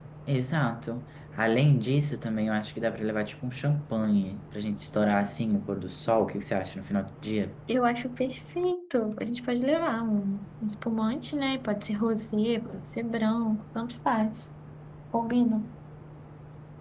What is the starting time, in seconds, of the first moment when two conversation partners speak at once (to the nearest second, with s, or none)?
none